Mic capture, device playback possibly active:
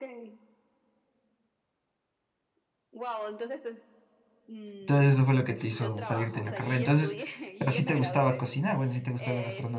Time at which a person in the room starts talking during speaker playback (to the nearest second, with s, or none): 5 s